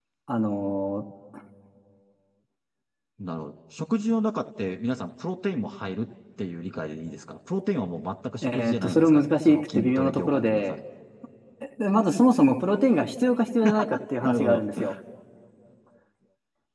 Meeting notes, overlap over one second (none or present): present